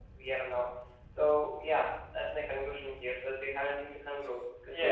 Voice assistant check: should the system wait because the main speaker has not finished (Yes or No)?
No